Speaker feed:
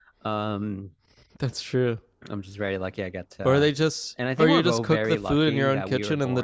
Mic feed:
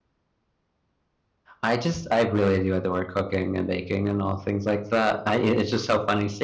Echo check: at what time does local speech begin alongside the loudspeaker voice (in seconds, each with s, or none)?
1.6 s